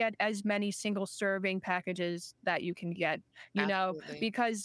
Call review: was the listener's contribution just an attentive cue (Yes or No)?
Yes